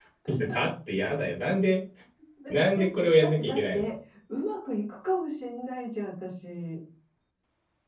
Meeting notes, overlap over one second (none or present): present